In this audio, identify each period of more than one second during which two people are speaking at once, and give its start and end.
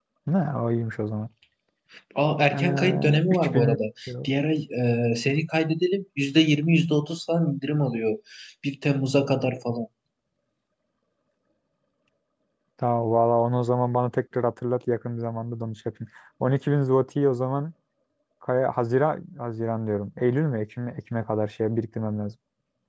2.5-3.8

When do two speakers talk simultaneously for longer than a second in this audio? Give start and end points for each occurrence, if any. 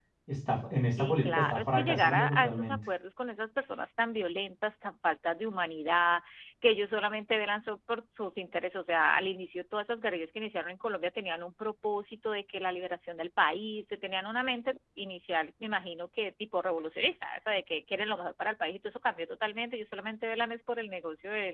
0.9-2.8

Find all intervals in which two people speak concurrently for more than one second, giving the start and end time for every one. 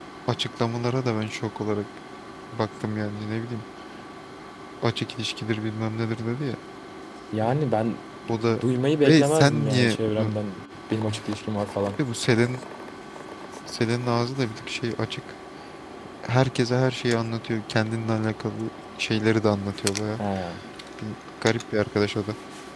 9.0-10.3

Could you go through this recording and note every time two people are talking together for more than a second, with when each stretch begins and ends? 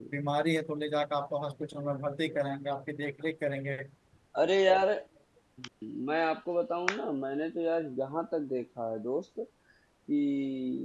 none

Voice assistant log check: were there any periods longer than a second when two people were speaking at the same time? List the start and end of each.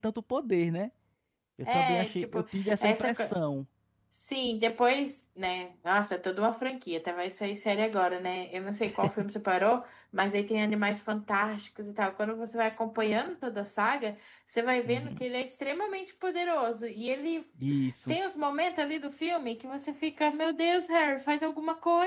1.7-3.2

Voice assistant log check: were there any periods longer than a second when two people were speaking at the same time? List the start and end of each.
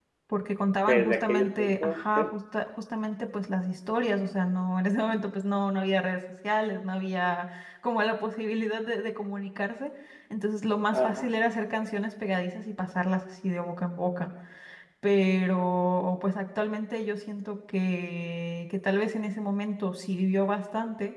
0.9-2.2

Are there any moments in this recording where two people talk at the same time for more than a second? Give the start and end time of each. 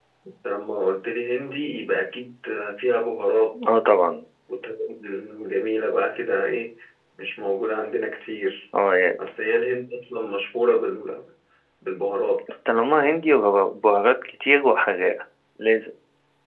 none

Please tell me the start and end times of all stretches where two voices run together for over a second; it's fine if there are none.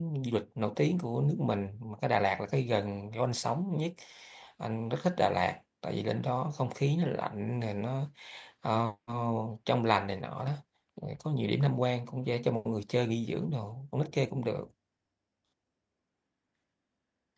none

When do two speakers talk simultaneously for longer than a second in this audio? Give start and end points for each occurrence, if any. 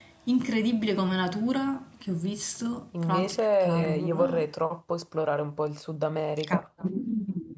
3.0-4.5

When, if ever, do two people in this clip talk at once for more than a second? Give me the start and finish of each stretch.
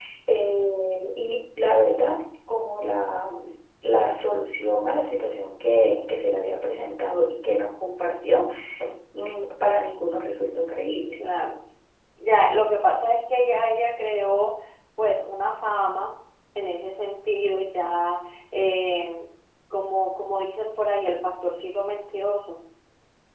none

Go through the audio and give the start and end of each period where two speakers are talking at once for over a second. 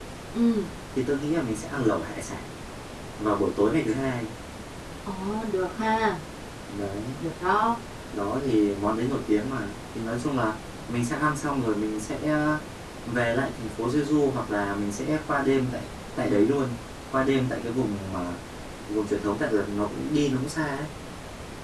none

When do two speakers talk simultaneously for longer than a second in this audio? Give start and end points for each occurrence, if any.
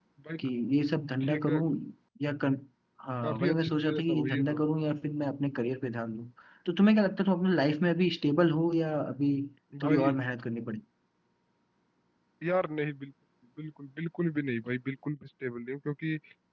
3.2-4.6

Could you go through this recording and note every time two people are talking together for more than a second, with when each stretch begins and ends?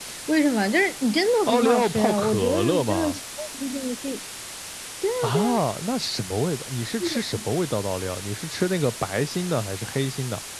1.5-3.2

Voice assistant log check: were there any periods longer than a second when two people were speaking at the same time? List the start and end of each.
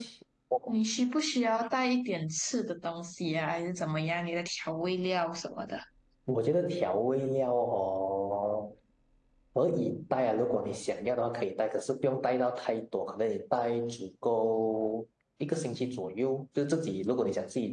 none

